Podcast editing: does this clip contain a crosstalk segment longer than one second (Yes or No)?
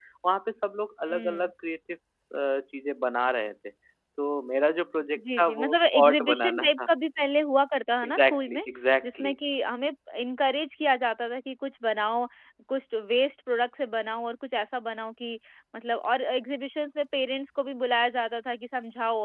Yes